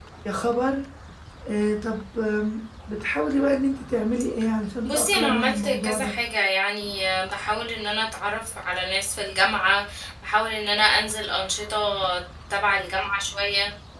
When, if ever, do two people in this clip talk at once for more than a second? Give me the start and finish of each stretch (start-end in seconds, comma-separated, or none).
4.8-6.1